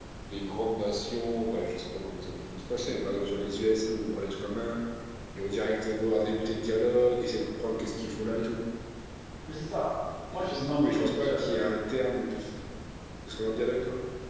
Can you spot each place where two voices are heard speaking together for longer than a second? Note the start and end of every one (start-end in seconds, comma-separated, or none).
10.3-11.7